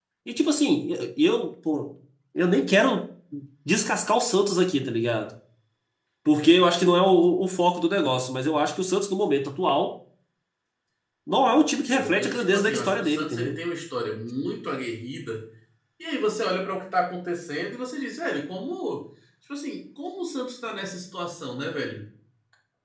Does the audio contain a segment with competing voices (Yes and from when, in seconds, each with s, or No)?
Yes, from 11.8 s